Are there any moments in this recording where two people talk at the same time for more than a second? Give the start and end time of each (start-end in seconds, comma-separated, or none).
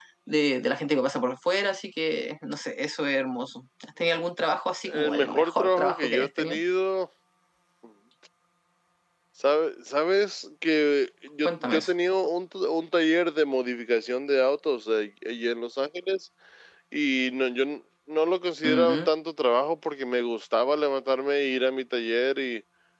4.9-6.6